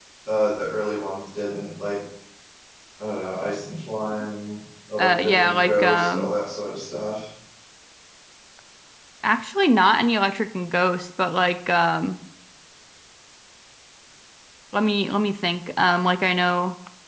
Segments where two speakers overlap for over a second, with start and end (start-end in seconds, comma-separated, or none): 5.0-6.3